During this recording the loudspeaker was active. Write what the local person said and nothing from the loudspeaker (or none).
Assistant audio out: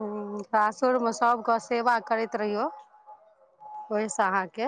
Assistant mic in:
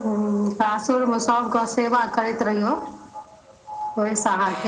none